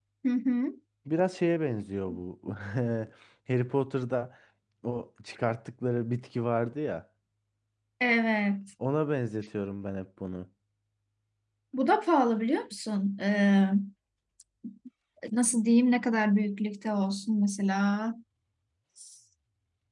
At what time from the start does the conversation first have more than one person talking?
none

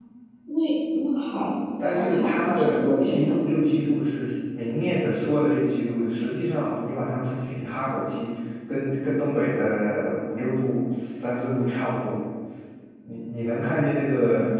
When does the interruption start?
2 s

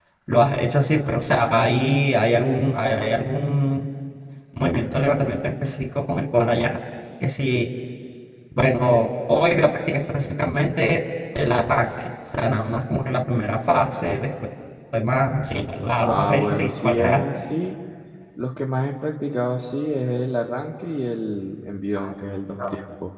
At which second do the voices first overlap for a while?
16 s

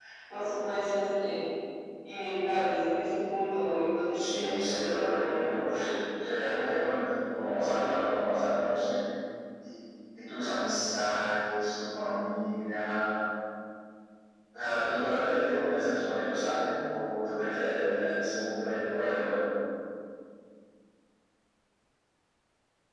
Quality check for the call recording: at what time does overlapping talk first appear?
4 s

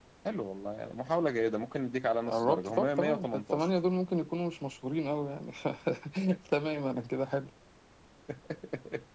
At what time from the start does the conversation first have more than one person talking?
2 s

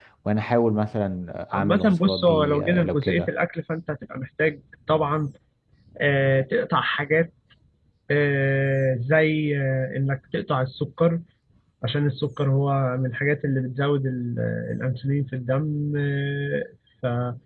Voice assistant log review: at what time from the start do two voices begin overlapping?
2 s

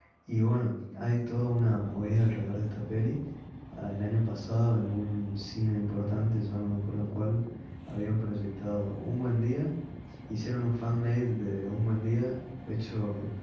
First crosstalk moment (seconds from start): none

